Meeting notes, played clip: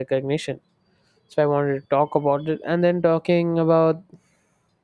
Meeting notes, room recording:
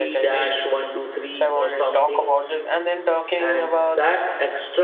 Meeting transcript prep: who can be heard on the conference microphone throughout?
both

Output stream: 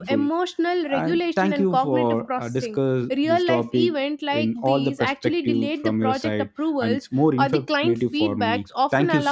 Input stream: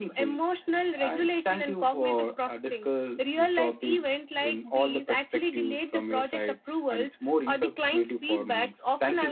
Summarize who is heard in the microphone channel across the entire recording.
echo only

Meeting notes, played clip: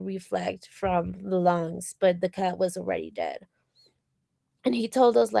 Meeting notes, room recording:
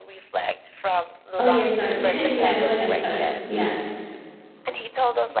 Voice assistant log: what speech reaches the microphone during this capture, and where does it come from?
both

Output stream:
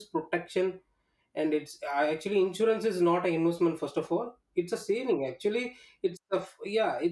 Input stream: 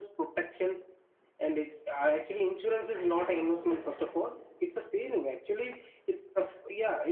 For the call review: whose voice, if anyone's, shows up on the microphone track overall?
both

